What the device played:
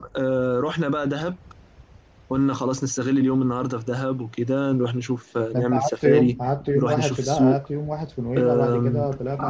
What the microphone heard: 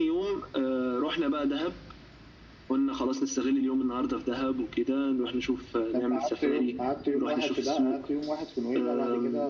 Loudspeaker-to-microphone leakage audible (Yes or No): Yes